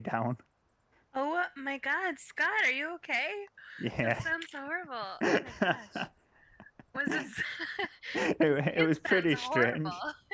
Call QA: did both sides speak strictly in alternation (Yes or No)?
No